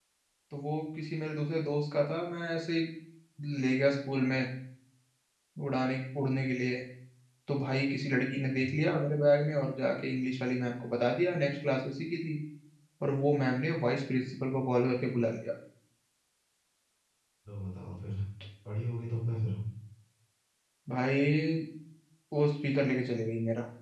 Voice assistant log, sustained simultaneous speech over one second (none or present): none